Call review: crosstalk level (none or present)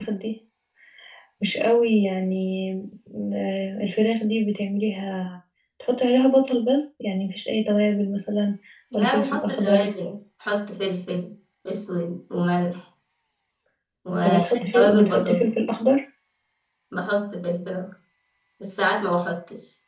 present